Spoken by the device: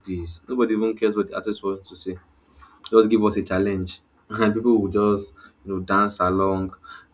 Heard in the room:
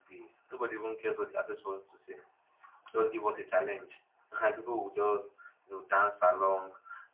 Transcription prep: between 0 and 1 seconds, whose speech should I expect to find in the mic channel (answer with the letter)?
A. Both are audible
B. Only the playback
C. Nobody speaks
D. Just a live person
B